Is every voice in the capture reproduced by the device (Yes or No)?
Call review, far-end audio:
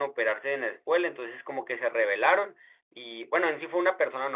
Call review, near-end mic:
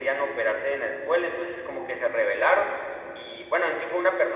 Yes